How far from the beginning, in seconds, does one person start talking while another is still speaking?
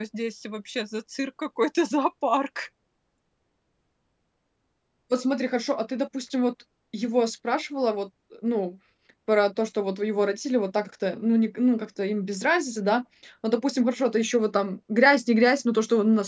none

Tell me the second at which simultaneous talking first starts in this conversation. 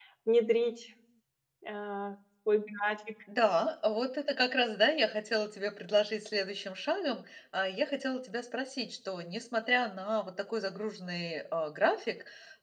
none

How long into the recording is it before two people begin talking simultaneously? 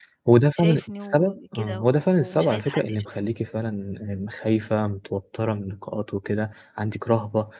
0.6 s

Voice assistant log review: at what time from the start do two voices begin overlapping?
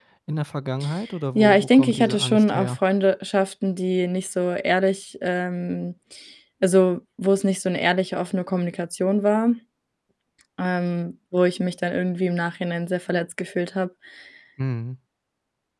1.4 s

